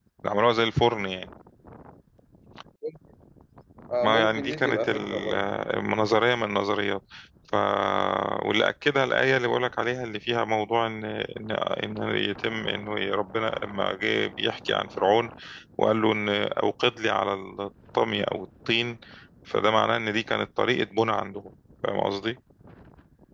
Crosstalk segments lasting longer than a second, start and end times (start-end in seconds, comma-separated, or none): 4.0-5.3